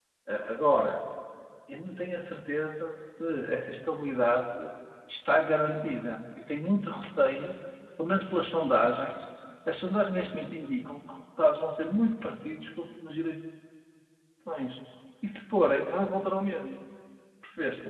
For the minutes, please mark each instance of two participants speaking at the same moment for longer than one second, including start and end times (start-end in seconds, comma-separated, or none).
none